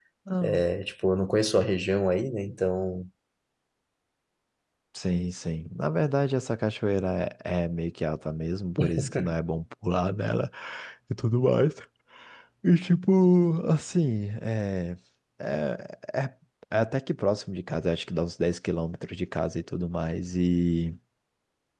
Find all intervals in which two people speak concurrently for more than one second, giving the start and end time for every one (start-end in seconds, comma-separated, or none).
none